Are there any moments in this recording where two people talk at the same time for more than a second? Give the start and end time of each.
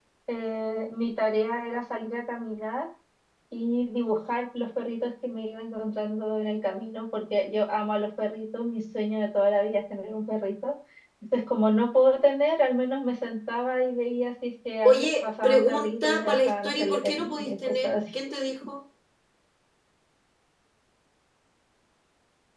14.8-17.9

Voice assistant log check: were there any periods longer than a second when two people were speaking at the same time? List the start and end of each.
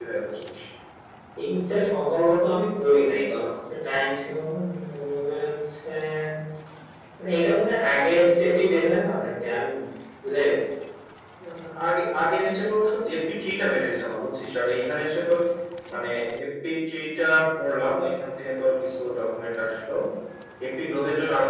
none

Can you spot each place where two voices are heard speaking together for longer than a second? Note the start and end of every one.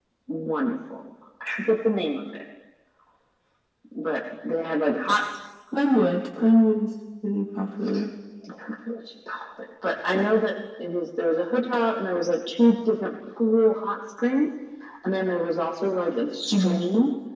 none

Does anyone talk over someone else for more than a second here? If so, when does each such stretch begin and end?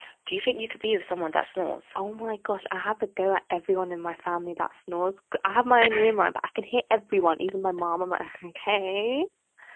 none

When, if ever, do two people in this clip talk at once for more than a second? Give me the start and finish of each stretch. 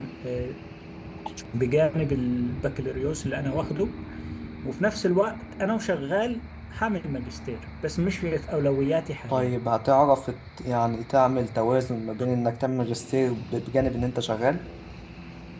none

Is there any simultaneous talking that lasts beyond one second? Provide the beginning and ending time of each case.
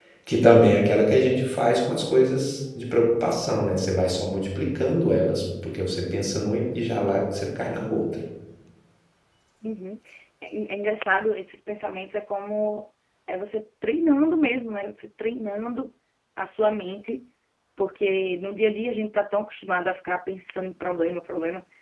none

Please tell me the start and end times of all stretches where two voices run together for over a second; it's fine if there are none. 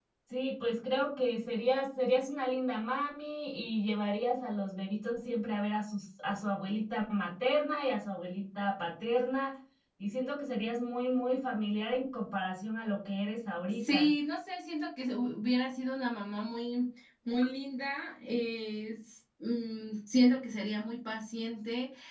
none

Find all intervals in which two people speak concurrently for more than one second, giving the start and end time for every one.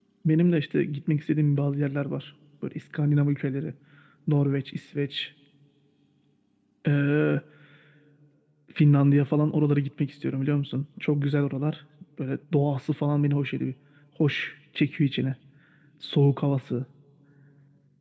none

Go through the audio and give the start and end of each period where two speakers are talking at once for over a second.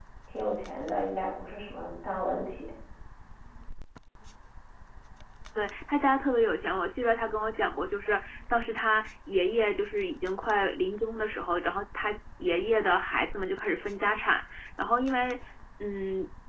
none

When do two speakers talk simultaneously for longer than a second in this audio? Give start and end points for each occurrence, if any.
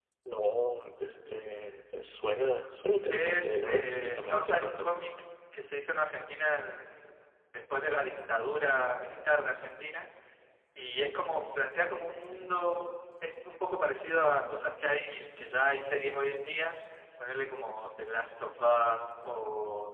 3.1-4.9

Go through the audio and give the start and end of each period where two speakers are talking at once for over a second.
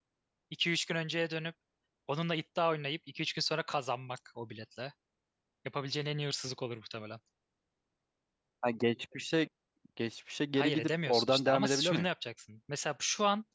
10.6-12.1

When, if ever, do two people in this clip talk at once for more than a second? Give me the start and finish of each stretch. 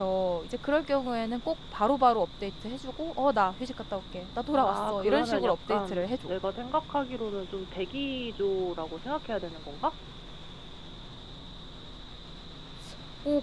4.5-6.3

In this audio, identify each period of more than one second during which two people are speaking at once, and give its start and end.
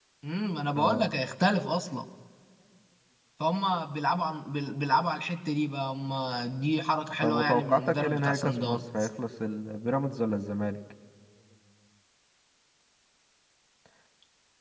7.2-9.1

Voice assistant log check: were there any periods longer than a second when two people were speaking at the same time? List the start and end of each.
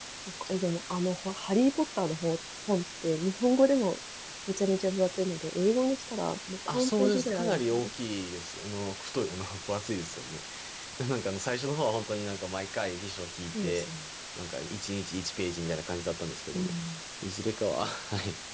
6.7-7.9

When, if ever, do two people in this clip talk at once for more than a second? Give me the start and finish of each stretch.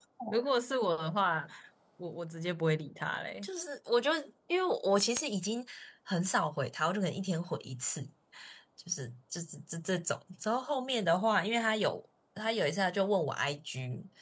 none

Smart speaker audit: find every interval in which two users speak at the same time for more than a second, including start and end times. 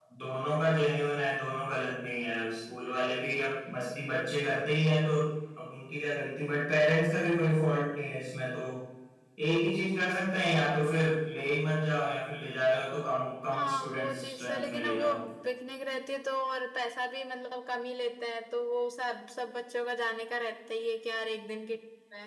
13.5-15.1

